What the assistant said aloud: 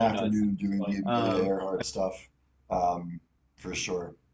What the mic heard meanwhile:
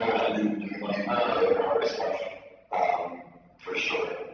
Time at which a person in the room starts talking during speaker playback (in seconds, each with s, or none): none